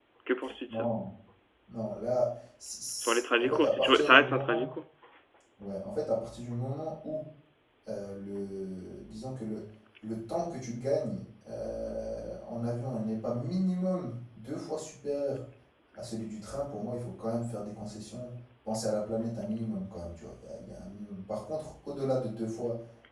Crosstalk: present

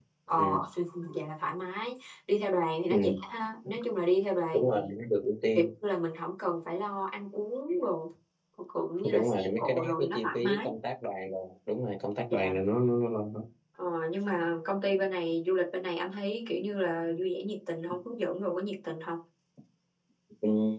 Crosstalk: present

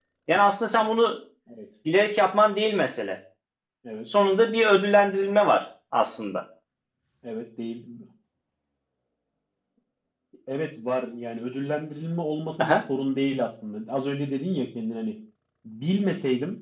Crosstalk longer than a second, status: none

